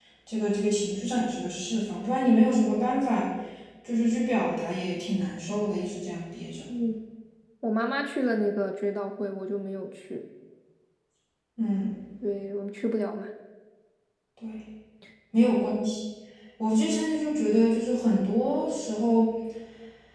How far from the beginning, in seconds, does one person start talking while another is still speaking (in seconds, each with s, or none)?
none